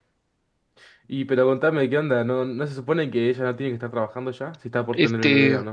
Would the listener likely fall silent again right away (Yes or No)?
No